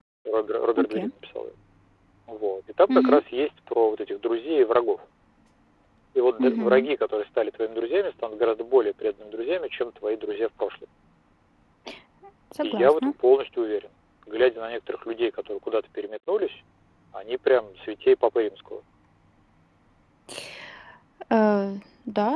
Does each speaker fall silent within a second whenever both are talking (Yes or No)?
Yes